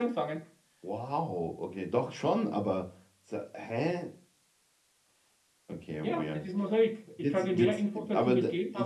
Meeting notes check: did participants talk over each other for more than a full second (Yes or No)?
Yes